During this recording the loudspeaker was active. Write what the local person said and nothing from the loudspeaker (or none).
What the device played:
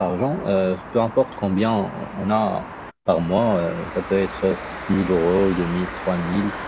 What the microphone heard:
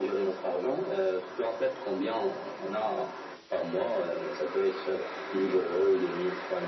none